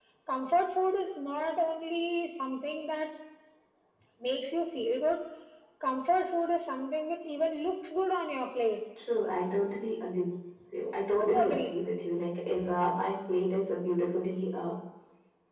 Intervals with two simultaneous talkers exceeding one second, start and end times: none

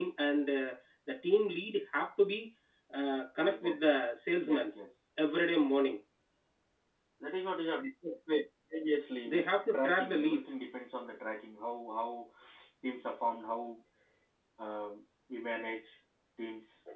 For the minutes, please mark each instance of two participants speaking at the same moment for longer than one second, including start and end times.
9.2-10.5

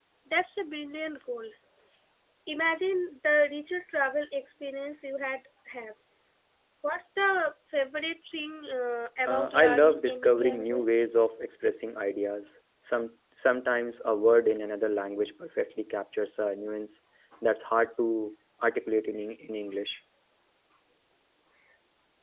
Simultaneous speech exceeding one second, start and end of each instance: 9.3-11.0

